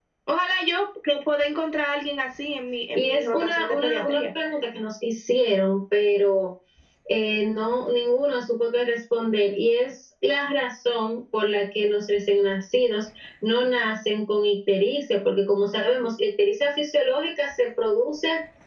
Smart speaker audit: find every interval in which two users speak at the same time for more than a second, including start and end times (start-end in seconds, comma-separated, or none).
3.0-4.3